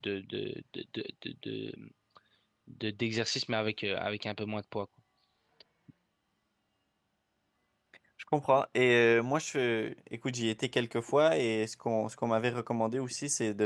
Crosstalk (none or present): none